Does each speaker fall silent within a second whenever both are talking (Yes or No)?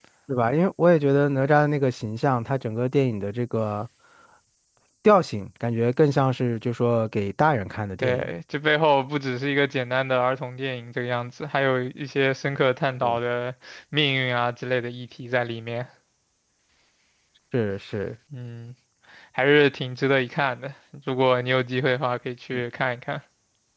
Yes